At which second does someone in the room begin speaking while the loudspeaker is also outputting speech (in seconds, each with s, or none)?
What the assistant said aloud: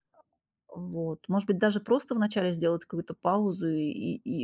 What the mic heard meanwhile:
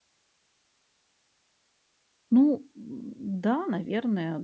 2.3 s